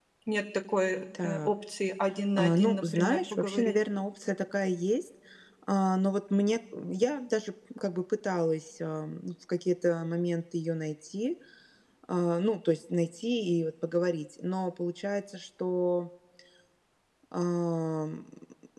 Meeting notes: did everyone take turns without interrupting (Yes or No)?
No